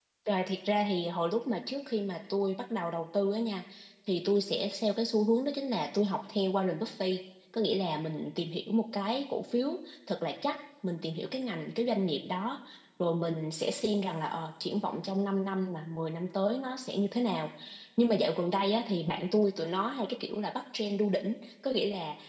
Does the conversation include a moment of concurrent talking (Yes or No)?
No